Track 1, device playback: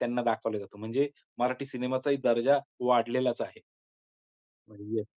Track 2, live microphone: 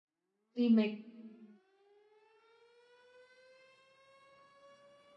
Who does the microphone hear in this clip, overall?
user only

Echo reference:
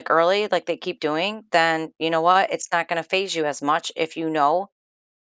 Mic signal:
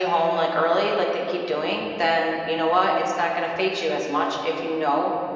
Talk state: echo only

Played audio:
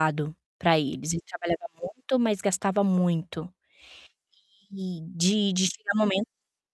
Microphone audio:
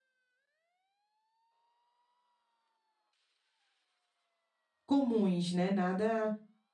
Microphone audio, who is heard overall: user only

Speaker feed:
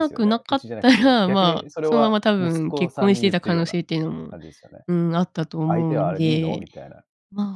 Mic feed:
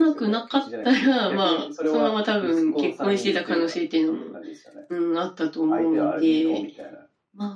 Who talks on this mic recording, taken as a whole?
echo only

